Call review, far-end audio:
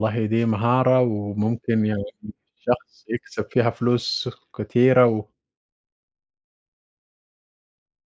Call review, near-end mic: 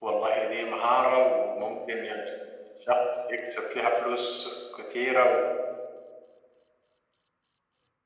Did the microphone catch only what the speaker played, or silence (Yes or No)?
Yes